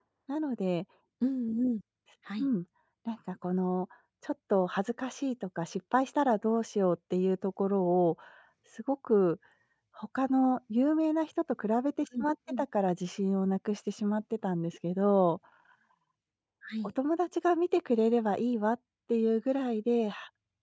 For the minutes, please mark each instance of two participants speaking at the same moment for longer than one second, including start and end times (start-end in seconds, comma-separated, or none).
none